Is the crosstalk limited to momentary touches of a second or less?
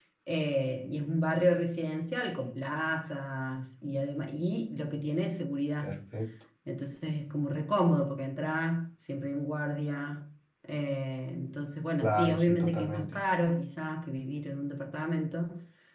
No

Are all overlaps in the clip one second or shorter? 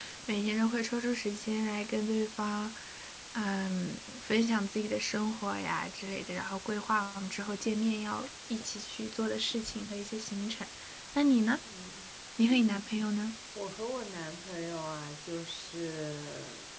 Yes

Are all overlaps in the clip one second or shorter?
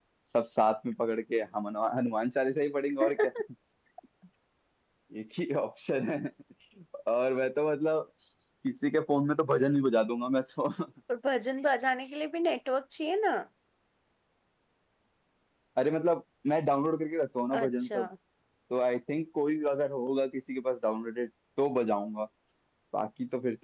Yes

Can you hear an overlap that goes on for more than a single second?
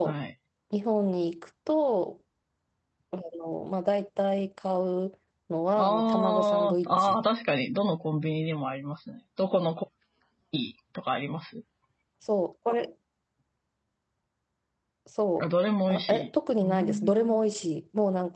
Yes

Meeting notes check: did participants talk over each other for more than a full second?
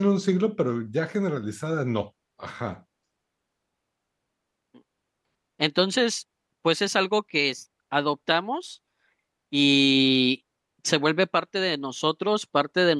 No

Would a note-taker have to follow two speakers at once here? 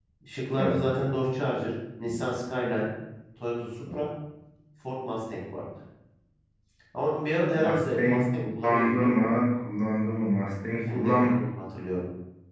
Yes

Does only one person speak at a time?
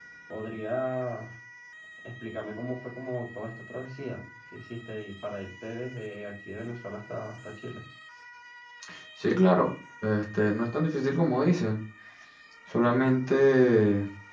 Yes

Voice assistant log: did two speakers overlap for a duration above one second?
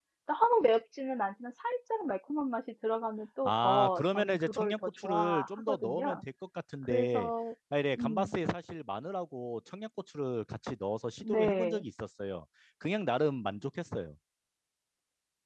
Yes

